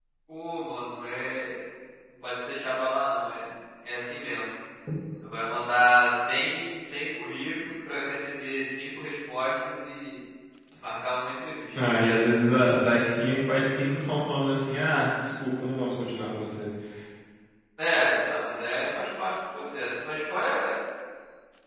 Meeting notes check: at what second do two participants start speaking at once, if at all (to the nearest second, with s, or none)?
none